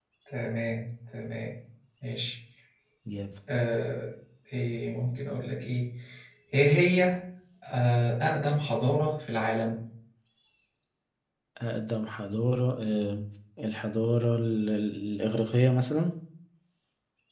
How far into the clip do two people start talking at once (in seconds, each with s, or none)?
none